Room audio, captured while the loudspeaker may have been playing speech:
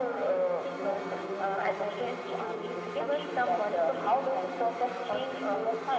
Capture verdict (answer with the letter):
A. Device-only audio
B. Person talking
A